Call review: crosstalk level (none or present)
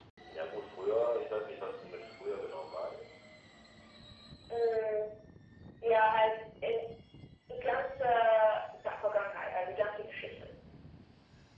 none